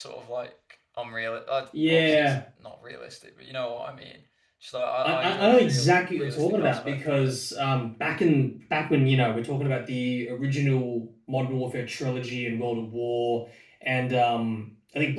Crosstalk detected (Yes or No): Yes